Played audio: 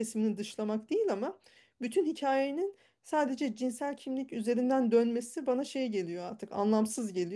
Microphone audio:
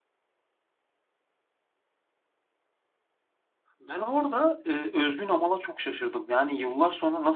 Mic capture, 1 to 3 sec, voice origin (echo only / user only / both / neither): neither